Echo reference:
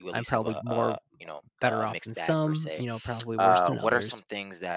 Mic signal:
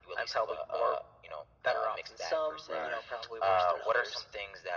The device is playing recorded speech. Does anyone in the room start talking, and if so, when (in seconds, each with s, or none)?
2.7 s